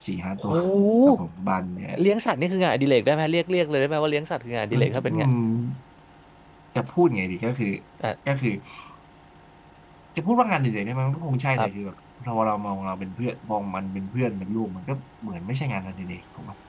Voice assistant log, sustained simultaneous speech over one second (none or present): none